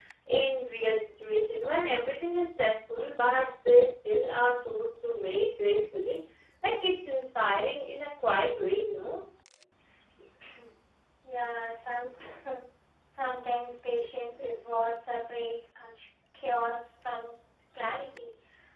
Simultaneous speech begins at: none

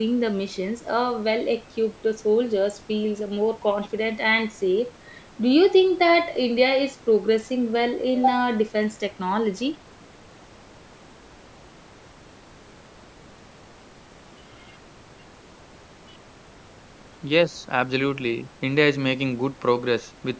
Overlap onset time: none

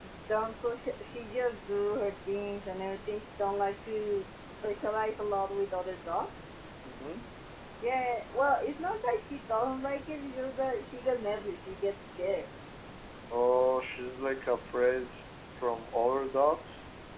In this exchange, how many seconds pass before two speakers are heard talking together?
none

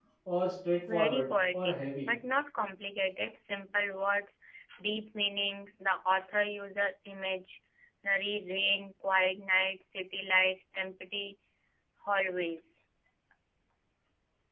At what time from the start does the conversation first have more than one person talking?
0.9 s

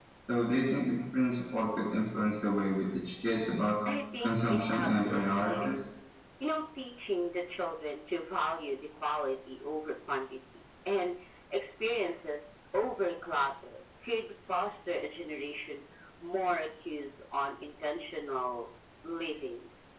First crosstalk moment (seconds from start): 4.2 s

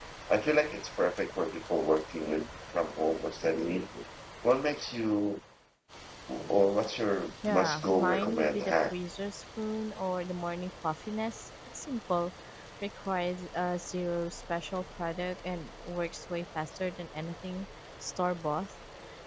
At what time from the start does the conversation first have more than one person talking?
7.4 s

